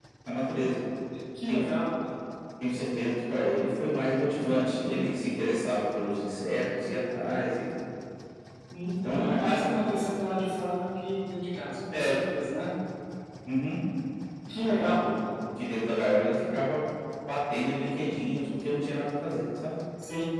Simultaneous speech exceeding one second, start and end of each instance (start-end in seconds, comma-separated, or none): none